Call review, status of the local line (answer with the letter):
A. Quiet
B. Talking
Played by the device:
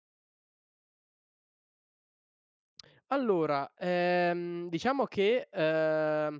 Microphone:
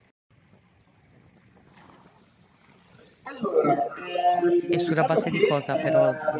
B